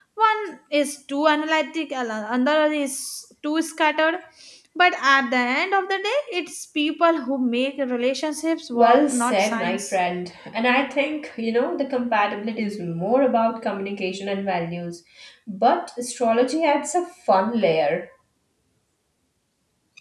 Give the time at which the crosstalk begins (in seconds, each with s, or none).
8.7 s